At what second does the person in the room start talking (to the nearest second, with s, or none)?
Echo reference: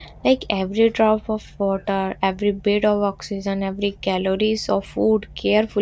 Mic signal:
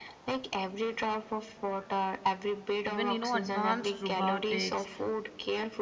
3 s